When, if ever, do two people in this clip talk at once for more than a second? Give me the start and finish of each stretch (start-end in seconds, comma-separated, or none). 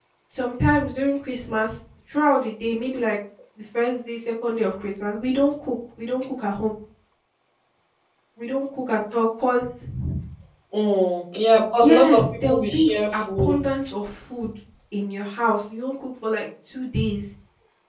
11.8-13.6